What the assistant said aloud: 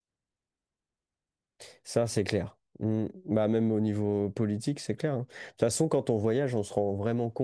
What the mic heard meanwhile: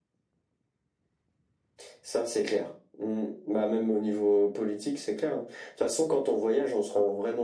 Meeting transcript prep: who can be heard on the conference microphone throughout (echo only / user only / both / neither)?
echo only